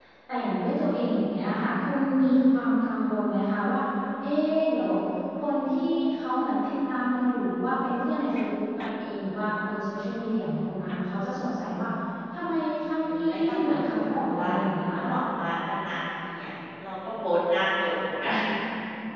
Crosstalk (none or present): present